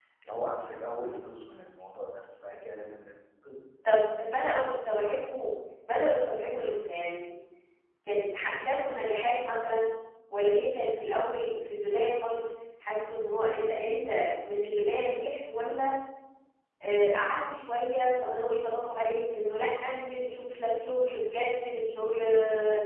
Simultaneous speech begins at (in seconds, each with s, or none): none